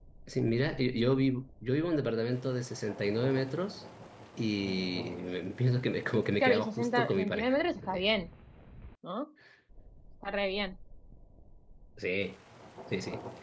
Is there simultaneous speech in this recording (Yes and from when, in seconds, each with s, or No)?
Yes, from 6.4 s